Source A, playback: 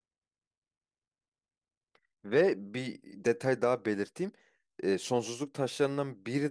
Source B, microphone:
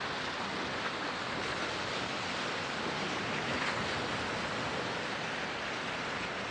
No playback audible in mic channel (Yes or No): Yes